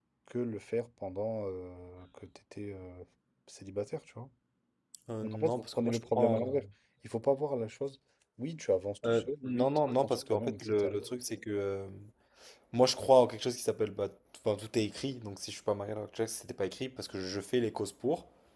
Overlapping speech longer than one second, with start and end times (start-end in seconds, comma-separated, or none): 5.2-6.6, 9.1-11.0